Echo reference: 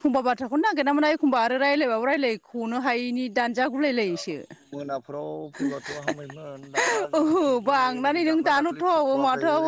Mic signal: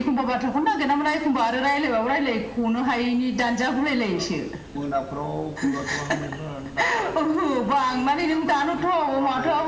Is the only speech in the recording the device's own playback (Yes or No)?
Yes